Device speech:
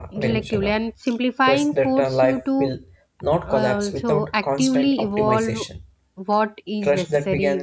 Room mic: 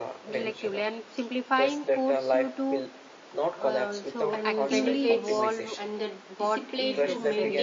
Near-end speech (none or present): present